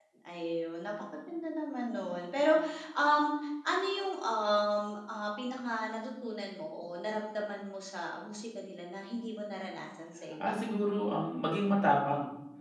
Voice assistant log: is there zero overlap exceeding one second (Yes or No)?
Yes